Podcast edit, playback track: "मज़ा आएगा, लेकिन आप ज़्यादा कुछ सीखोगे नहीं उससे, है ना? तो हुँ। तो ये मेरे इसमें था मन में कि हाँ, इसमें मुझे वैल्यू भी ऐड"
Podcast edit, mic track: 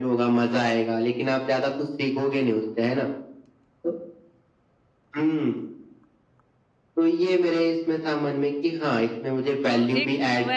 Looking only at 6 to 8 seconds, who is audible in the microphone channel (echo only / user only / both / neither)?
echo only